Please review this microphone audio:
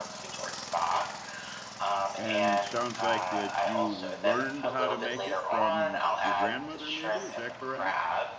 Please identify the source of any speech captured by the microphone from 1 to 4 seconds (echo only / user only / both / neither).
both